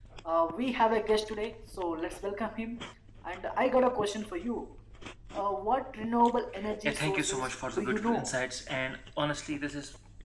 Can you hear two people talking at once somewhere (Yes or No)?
Yes